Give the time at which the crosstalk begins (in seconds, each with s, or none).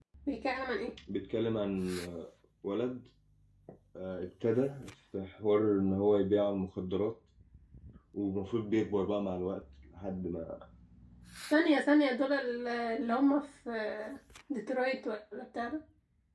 none